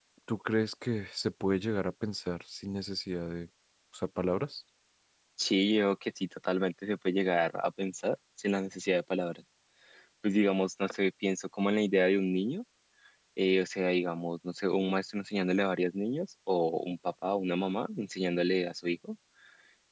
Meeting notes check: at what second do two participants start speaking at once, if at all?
none

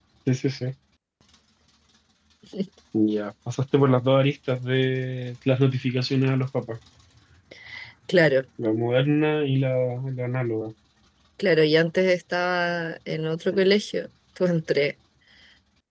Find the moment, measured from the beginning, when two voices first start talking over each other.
none

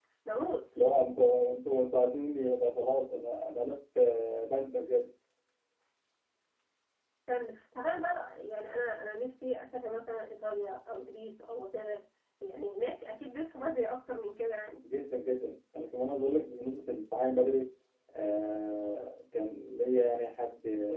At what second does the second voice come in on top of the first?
none

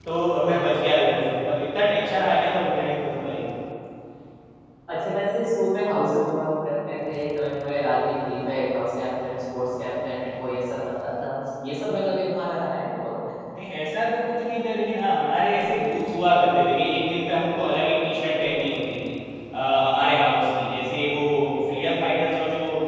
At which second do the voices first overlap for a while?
none

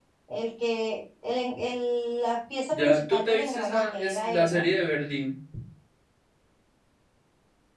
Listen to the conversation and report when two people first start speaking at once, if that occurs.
2.7 s

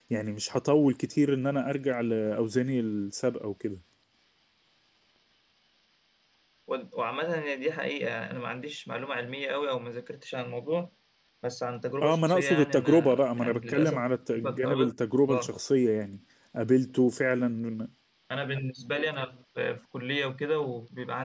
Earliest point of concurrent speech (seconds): 12.0 s

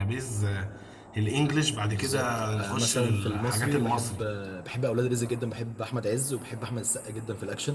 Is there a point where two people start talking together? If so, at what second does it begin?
1.9 s

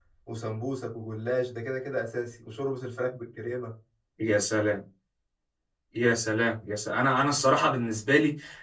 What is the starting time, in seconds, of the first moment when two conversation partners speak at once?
none

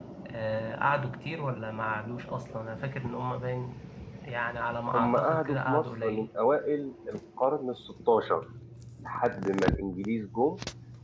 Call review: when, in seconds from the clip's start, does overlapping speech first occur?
4.9 s

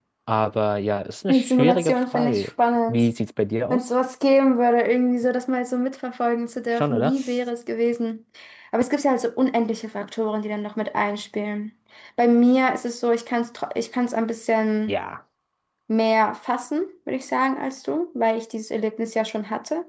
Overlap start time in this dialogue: 1.3 s

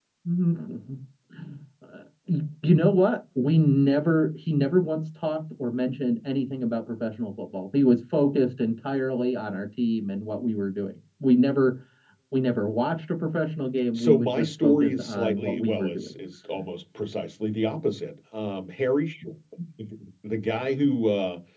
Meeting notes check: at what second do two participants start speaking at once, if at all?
14.0 s

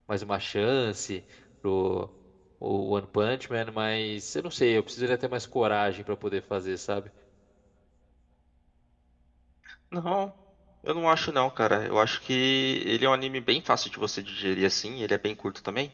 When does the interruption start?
none

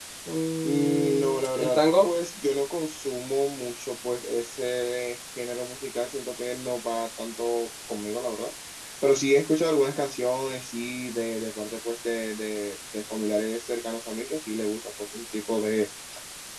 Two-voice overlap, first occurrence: 0.6 s

